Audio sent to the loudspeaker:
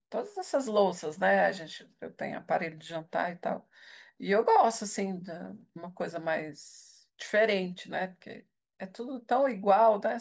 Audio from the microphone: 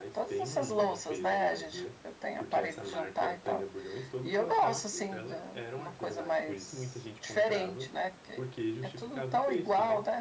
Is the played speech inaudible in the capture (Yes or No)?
No